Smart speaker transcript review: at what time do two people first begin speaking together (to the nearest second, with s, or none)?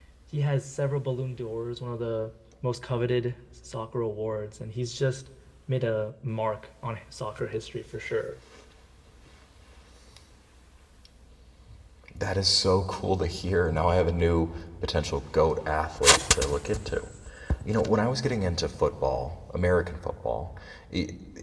none